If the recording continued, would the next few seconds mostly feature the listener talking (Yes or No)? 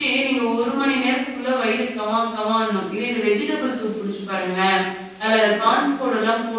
No